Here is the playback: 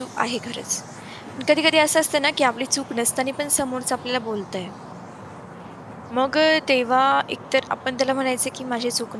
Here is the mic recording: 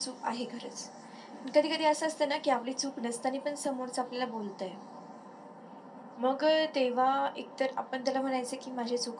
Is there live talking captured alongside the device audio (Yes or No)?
No